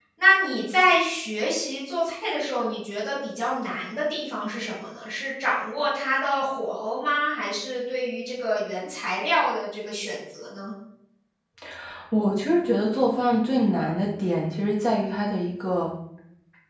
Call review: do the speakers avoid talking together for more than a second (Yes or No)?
Yes